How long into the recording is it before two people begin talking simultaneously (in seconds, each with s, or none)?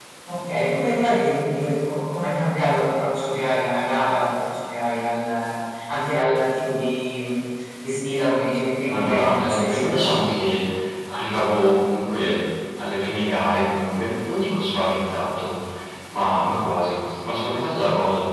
8.8 s